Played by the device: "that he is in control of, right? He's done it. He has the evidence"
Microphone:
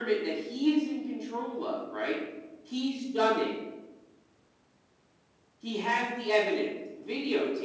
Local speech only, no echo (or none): none